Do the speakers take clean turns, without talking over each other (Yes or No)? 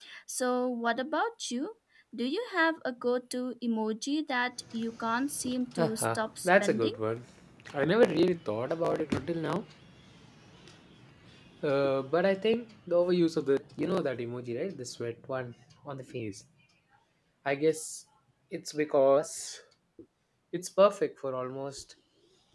No